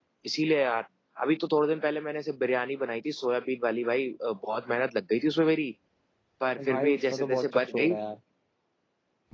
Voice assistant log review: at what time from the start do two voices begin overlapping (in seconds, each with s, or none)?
6.7 s